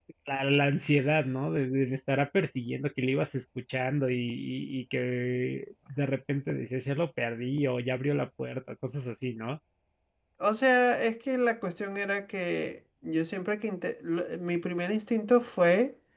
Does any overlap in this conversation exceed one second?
No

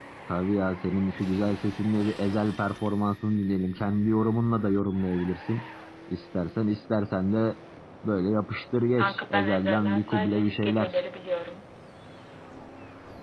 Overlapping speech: Yes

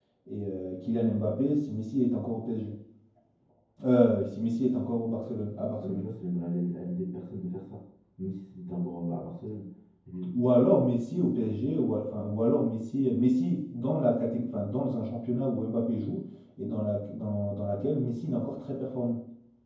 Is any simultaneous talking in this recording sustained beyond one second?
No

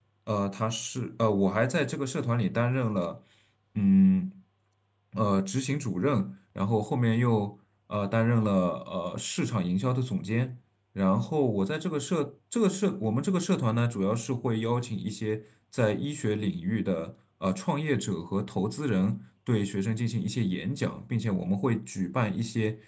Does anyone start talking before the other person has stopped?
No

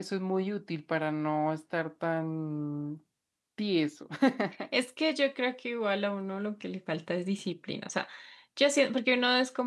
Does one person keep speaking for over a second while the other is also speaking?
No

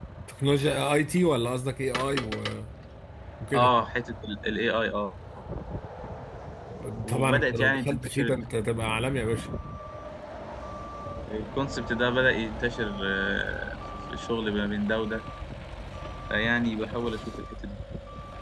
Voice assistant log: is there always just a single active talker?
No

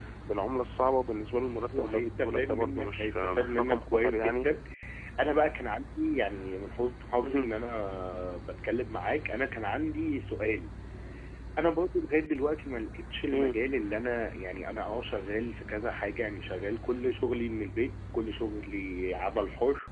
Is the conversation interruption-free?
No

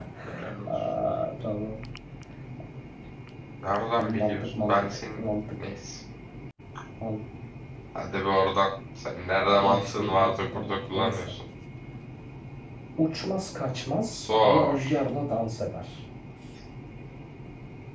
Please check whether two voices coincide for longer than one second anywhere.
Yes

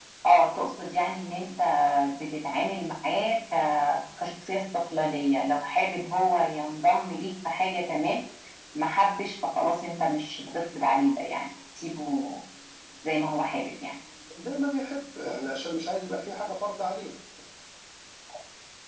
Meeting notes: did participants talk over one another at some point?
No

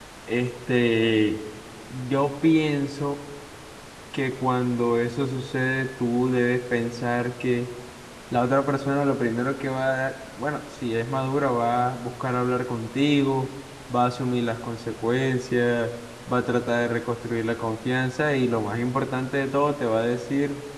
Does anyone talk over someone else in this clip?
No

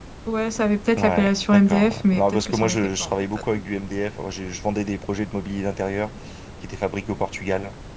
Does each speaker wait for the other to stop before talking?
No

